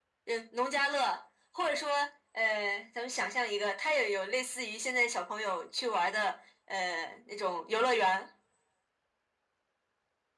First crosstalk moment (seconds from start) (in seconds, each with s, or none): none